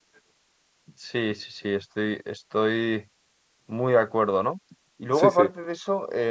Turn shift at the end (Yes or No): No